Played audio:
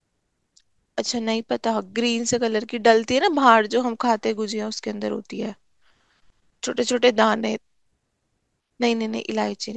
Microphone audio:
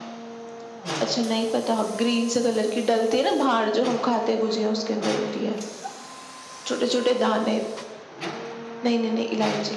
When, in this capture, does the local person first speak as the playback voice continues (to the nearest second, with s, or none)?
none